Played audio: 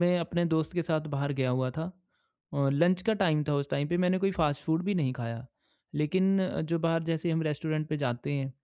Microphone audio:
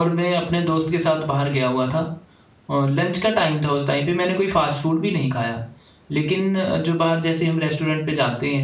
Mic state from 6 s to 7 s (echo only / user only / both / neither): echo only